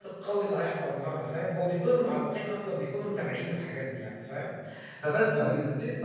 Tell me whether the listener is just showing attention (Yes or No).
Yes